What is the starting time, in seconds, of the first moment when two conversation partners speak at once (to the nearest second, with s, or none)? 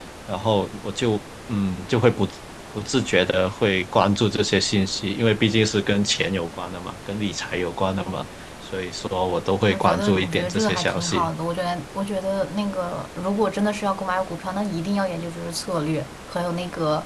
10 s